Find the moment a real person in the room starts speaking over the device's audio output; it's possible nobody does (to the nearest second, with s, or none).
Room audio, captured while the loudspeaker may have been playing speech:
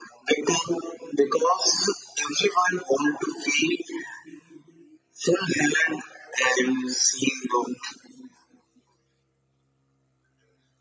none